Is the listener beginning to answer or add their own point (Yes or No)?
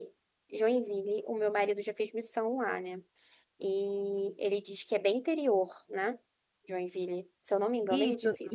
Yes